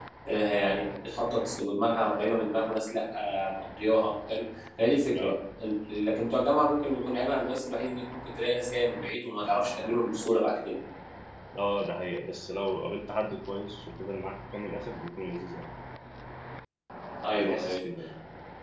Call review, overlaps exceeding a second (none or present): none